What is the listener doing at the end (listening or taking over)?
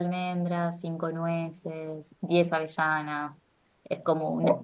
listening